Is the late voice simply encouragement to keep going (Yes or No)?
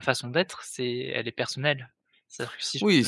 No